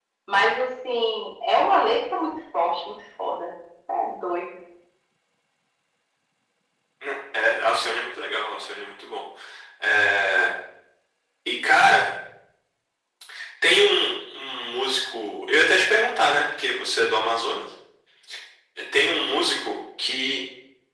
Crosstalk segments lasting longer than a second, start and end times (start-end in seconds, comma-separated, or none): none